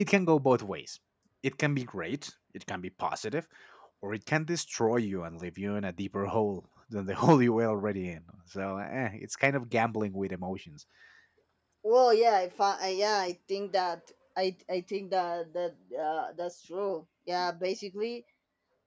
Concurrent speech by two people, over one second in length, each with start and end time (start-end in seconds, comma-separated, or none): none